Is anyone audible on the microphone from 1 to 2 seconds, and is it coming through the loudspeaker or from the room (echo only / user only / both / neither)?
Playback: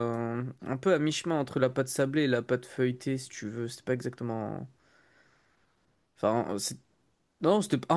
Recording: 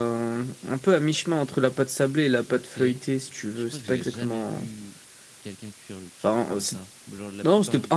echo only